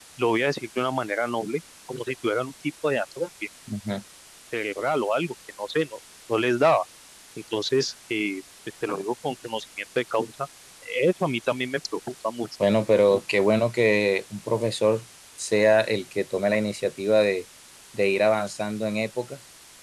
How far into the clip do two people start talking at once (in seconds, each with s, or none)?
none